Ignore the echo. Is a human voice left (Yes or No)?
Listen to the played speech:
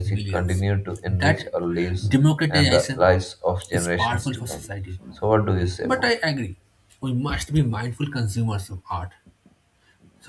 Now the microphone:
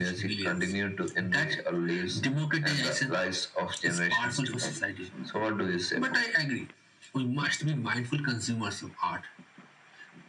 No